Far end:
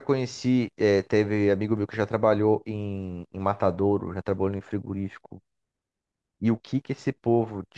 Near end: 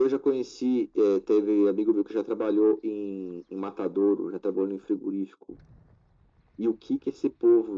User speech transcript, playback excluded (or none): none